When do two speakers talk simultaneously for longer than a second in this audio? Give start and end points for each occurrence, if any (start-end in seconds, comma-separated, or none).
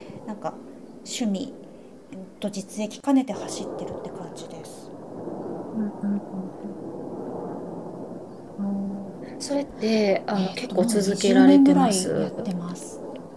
10.4-12.4